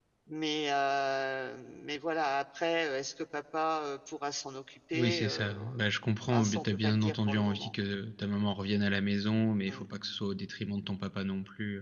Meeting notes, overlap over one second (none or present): present